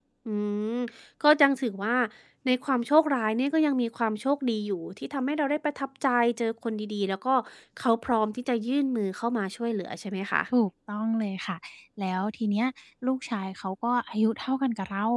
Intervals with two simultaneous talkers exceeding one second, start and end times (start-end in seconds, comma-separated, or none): none